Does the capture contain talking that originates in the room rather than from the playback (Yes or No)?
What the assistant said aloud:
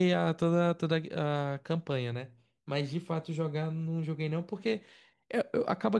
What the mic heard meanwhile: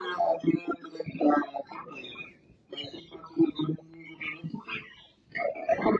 No